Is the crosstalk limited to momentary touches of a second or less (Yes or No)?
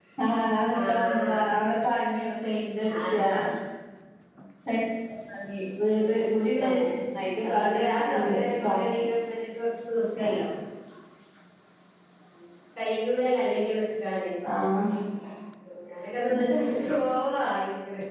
No